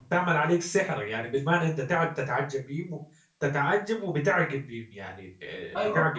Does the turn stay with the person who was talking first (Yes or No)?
No